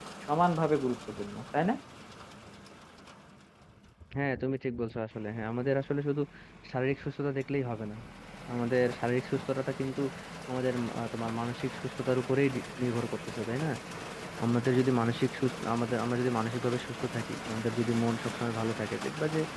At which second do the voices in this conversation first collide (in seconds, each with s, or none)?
none